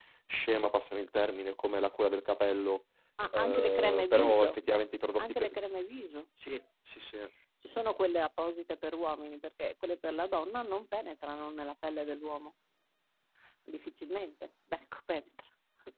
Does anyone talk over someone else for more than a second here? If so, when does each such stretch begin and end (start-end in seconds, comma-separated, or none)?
3.3-4.6